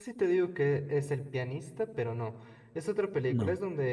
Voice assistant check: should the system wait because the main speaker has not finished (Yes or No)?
Yes